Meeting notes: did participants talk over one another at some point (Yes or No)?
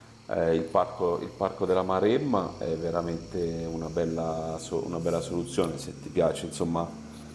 No